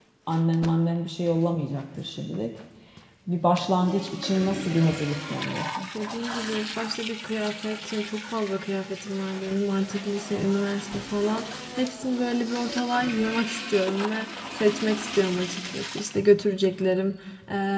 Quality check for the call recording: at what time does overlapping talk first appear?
none

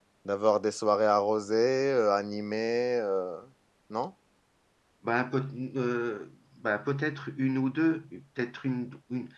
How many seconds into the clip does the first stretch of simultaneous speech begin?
none

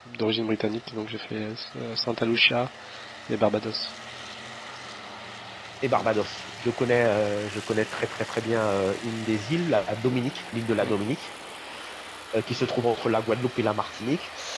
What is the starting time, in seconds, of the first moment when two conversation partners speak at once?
none

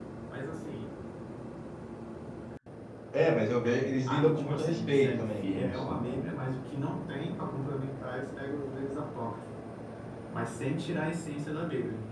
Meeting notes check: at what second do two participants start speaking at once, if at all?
3.6 s

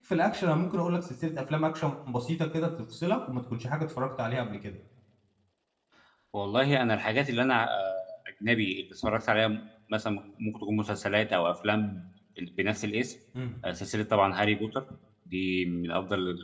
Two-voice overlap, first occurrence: none

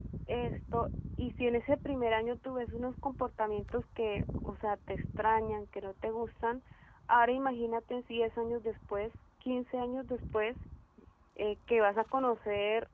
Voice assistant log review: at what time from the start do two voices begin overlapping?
none

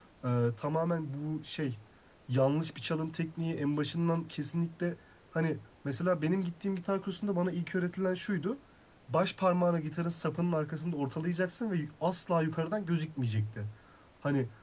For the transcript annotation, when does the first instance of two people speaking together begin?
none

